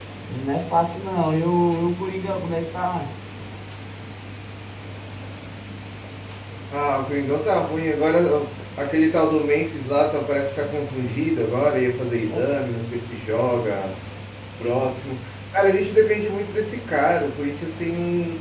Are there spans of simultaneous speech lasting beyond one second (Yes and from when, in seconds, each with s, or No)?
No